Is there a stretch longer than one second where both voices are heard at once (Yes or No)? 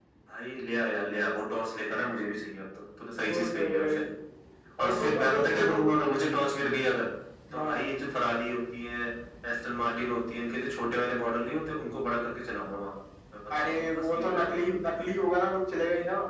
Yes